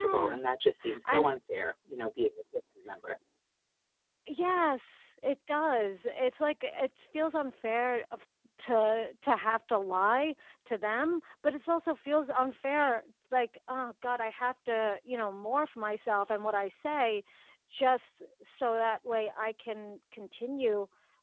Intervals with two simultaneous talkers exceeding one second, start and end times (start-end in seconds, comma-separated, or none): none